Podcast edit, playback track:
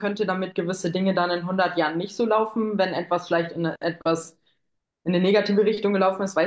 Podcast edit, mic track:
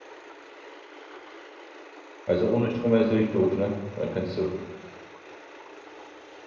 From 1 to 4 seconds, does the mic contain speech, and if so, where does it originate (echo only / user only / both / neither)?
user only